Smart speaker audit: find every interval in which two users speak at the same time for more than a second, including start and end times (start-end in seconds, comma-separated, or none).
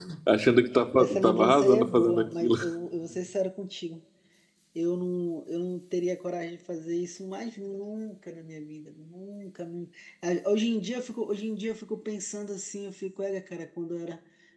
1.0-2.6